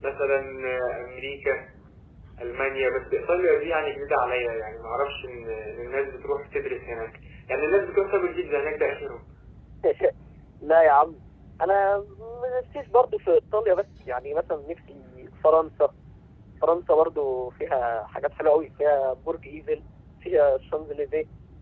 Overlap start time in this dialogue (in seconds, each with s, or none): none